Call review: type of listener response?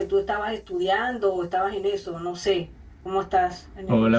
taking over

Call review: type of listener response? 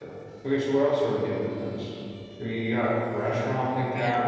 taking over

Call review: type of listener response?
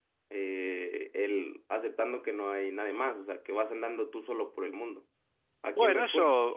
taking over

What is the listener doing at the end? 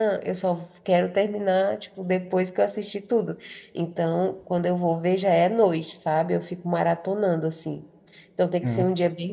listening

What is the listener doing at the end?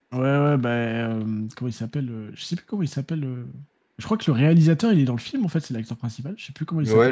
taking over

